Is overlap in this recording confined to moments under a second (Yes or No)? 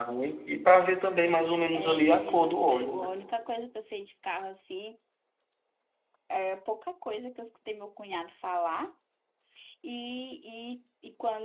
No